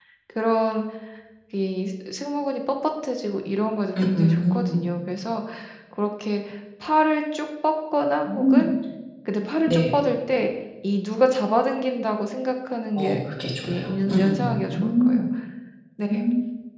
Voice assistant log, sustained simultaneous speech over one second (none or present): present